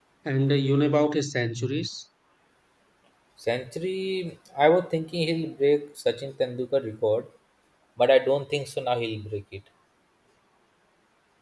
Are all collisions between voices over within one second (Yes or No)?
Yes